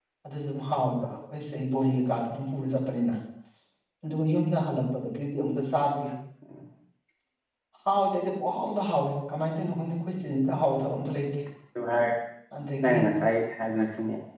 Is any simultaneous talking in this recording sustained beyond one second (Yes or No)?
No